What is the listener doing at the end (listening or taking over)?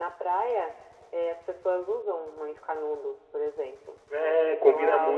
taking over